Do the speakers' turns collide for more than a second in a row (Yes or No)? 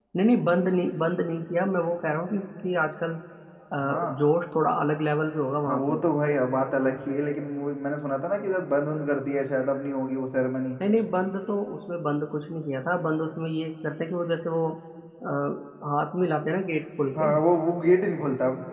No